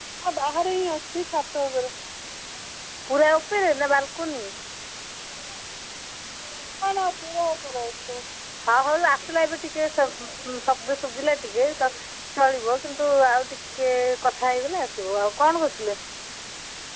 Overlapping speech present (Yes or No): No